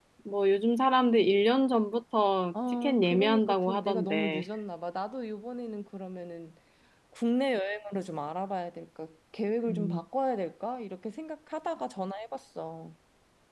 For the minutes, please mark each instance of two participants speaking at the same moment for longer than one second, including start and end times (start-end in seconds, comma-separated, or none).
2.7-4.4